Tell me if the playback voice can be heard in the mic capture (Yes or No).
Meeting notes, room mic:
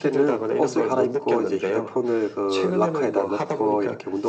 Yes